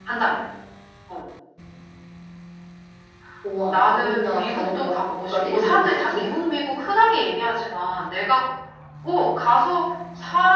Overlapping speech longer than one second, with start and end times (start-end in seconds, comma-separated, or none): 3.7-6.3